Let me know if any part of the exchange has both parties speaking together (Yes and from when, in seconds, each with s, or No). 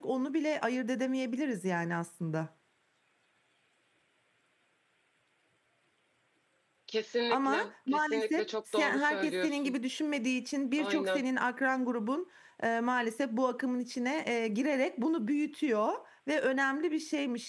Yes, from 7.3 s